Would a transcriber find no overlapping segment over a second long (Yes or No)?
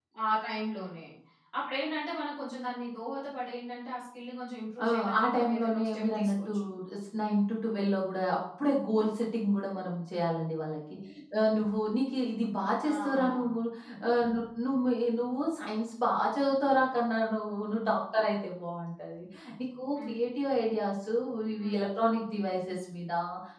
No